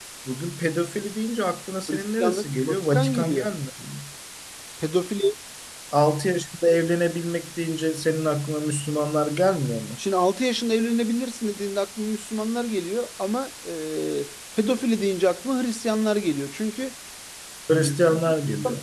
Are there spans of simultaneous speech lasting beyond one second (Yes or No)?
Yes